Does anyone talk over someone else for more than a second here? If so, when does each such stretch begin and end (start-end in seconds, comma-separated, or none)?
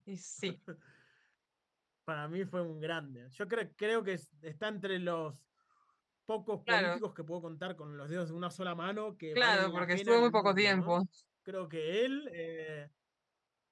9.4-11.0